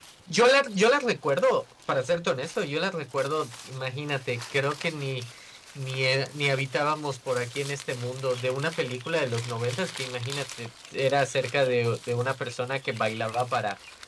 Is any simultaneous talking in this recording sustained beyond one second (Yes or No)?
No